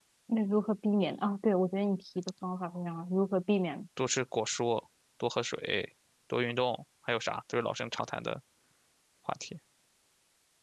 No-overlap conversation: Yes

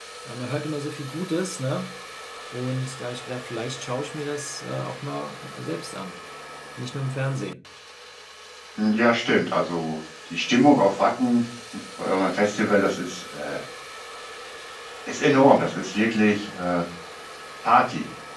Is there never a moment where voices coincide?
Yes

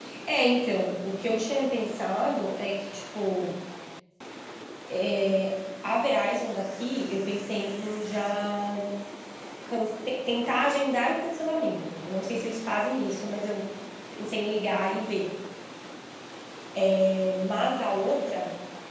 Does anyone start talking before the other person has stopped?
No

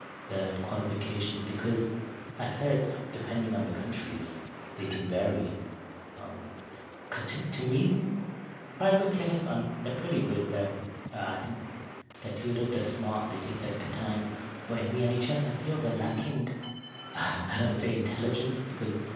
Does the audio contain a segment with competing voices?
No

